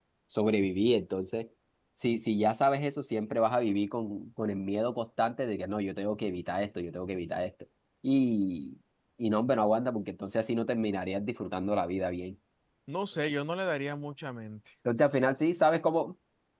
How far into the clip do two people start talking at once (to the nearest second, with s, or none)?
none